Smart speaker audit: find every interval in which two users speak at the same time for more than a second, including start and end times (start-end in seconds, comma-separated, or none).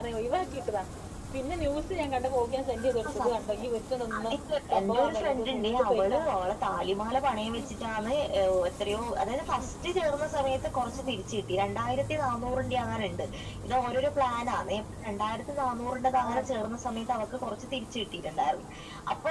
4.8-6.2